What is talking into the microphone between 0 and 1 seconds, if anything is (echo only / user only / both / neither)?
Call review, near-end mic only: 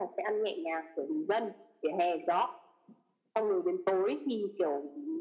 echo only